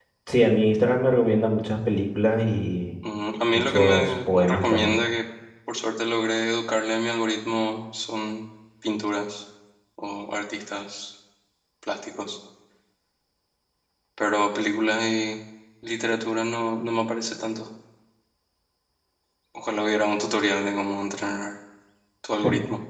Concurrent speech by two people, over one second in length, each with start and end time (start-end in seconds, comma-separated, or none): 3.5-5.0